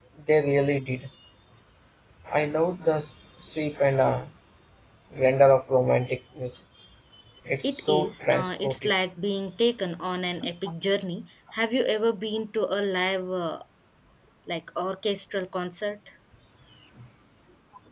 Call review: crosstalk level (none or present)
present